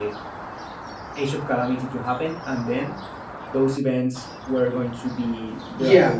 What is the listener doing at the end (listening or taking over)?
taking over